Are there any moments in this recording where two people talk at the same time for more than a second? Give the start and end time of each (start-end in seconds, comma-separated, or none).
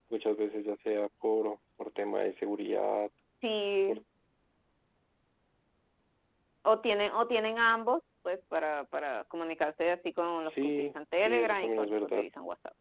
10.4-12.2